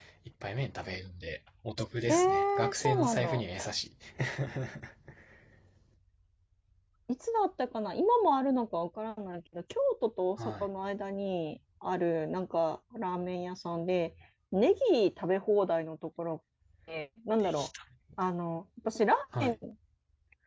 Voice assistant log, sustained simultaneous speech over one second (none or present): present